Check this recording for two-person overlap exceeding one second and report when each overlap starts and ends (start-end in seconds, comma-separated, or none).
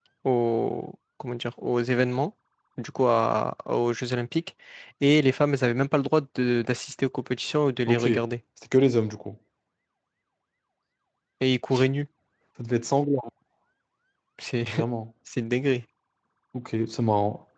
none